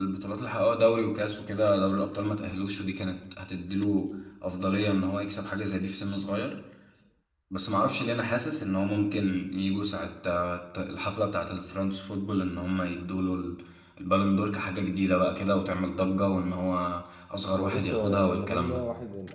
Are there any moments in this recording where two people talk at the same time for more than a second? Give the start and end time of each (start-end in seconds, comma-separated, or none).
17.6-18.8